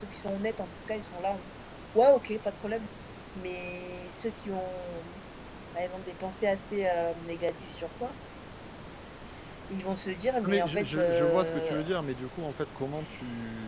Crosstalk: present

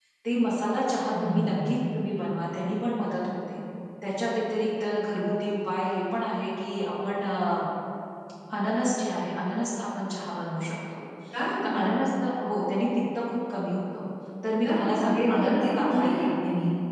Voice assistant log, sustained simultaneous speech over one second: present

